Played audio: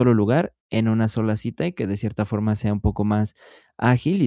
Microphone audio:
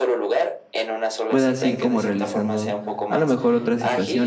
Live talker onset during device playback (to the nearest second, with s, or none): 1 s